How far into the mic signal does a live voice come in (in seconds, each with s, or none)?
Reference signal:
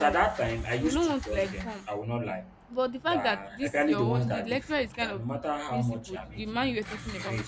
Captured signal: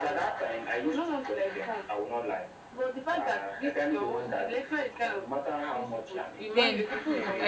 6.5 s